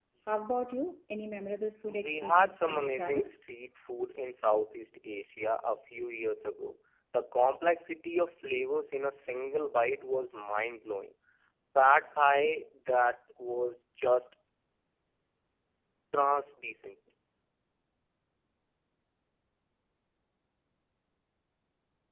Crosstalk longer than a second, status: present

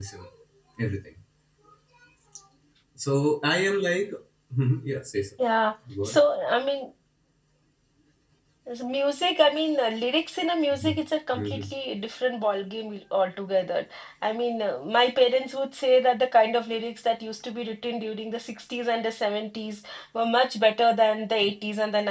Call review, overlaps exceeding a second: none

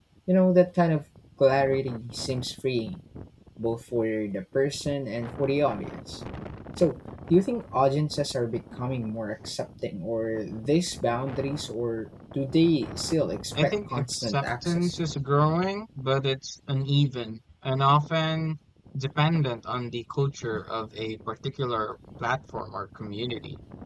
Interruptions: present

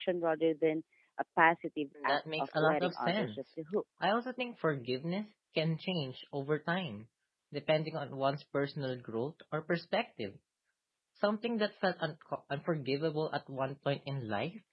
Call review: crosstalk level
present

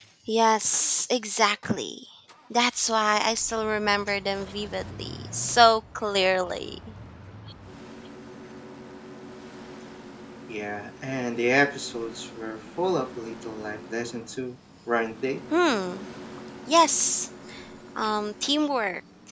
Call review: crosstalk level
none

